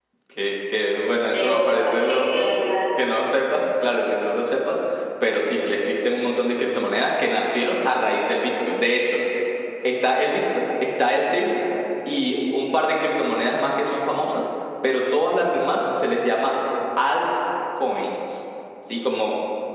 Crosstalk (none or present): present